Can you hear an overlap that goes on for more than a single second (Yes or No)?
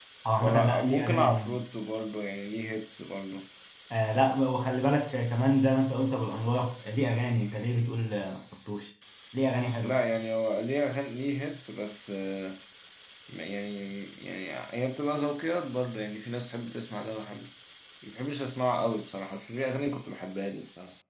Yes